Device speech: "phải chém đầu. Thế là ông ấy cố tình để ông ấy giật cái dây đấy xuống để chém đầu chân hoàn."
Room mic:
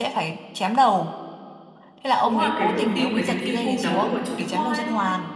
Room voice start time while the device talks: 2.2 s

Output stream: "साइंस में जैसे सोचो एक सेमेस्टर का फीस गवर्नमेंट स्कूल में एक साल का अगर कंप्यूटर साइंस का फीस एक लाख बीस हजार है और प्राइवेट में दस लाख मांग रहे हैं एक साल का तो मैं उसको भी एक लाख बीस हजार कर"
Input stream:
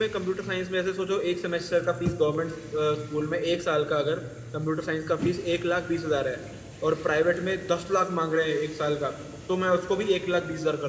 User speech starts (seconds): none

